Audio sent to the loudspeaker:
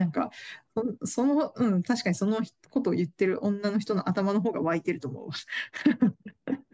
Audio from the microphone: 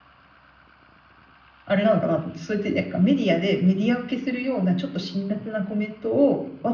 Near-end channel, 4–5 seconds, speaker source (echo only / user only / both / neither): user only